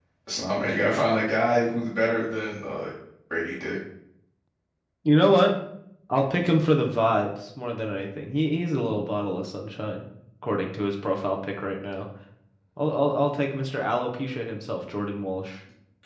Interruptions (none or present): none